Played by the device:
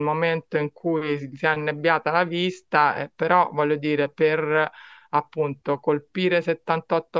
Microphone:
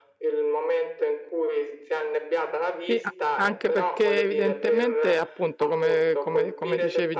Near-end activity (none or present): present